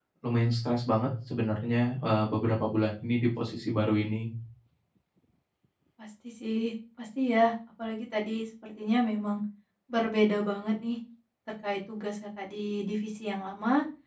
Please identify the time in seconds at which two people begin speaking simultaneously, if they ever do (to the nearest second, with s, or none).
none